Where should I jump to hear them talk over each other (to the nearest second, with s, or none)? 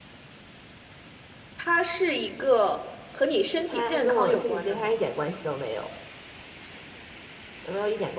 4 s